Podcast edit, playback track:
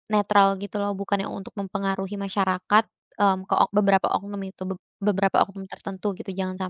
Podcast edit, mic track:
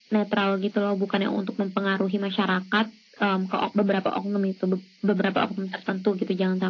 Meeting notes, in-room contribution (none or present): none